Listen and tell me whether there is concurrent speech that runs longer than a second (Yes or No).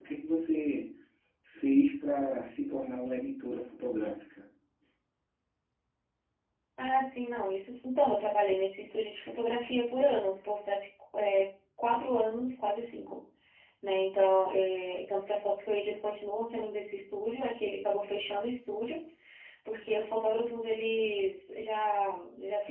No